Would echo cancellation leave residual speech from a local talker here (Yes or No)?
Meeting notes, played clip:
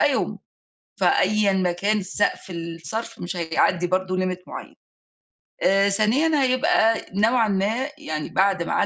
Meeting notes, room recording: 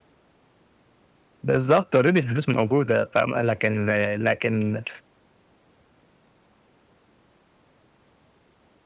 Yes